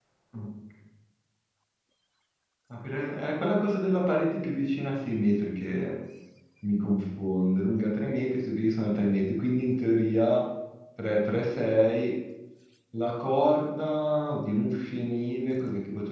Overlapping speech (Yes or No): No